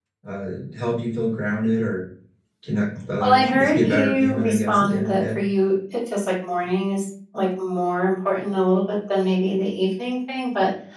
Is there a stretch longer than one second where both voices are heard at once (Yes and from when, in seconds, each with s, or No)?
Yes, from 3.2 s